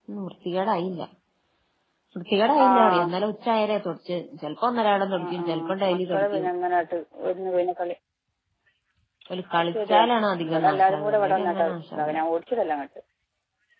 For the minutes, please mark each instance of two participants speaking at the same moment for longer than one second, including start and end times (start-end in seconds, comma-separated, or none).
5.2-6.5, 10.4-11.7